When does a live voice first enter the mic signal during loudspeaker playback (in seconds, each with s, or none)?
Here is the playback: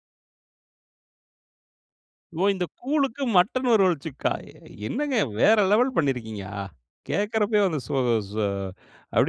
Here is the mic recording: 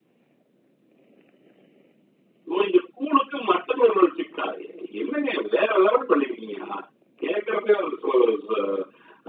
none